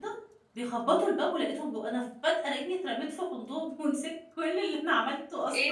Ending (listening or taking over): taking over